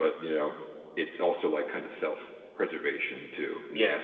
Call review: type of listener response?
listening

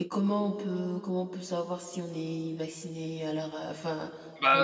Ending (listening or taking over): taking over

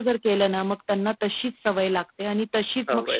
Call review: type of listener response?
listening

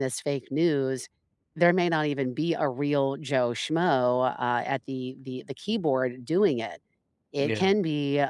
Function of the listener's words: listening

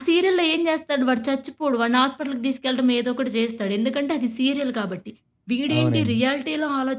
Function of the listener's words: listening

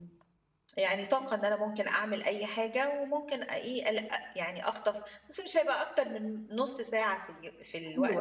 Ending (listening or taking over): taking over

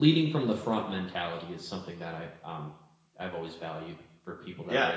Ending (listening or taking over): taking over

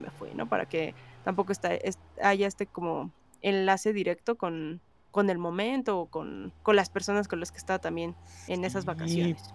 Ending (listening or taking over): taking over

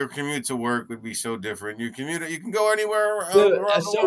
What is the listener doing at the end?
taking over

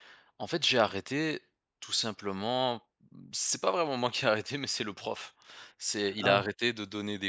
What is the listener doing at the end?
listening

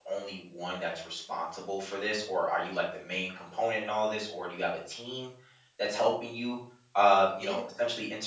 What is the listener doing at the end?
listening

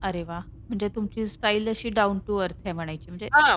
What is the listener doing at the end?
taking over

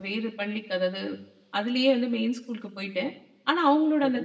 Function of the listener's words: listening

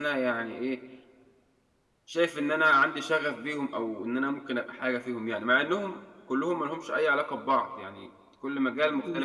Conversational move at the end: taking over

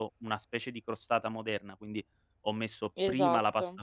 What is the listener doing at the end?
listening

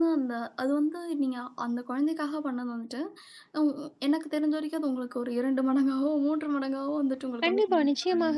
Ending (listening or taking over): taking over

